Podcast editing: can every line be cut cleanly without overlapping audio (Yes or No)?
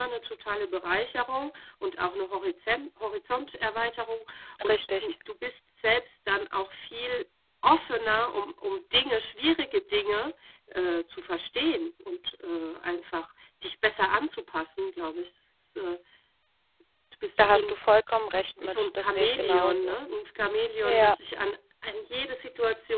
No